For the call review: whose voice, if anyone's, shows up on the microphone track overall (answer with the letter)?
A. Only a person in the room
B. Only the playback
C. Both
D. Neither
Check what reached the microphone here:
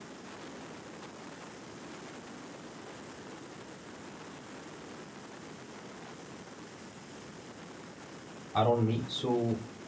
A